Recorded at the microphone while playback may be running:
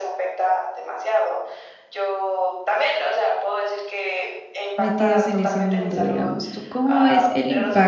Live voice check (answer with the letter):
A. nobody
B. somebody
B